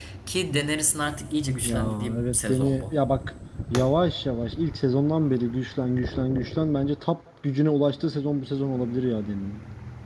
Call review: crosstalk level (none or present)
present